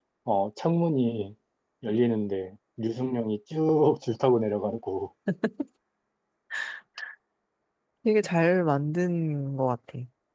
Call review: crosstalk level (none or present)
none